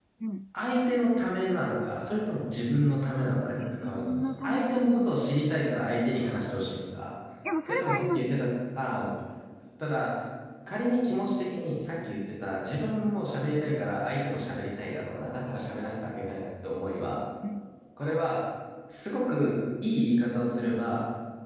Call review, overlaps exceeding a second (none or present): present